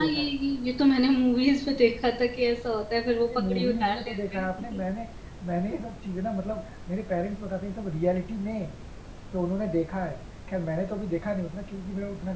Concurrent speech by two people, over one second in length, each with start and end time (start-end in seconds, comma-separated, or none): 3.3-4.8